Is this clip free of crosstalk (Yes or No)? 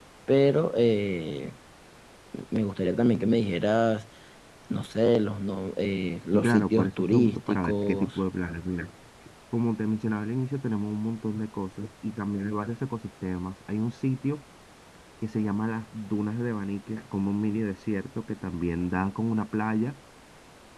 No